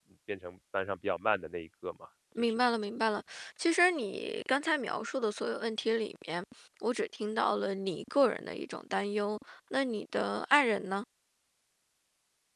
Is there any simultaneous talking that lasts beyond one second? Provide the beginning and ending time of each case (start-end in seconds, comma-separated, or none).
none